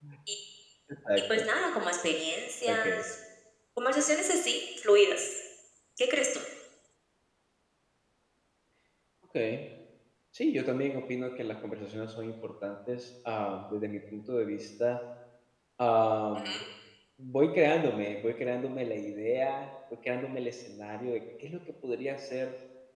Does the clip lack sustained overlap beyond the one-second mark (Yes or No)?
Yes